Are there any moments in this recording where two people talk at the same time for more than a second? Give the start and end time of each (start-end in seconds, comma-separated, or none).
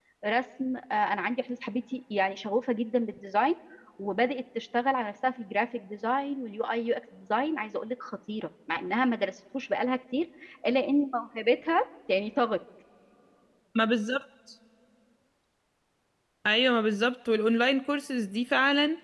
none